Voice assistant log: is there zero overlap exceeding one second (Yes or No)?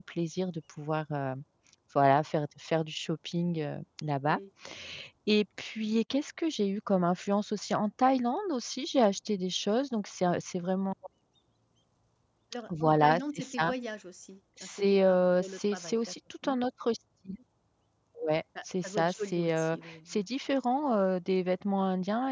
No